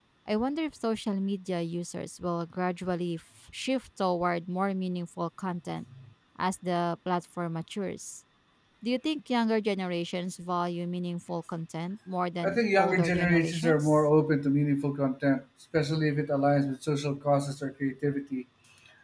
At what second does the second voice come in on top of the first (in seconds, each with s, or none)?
12.4 s